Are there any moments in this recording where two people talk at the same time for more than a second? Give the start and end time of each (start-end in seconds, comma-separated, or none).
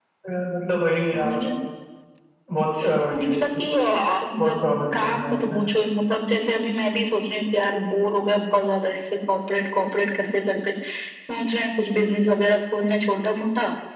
4.4-5.6